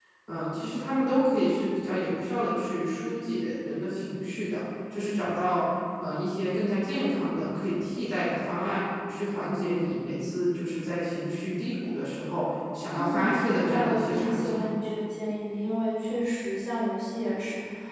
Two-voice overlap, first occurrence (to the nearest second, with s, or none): 13 s